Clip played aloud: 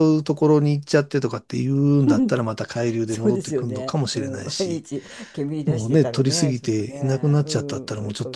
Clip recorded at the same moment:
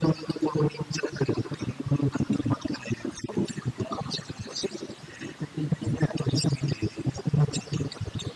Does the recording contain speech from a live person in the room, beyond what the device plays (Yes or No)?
No